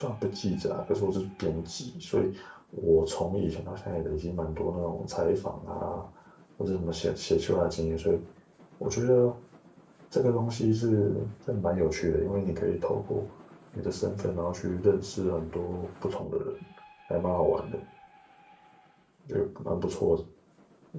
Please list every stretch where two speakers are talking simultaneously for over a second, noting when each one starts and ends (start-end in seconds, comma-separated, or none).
none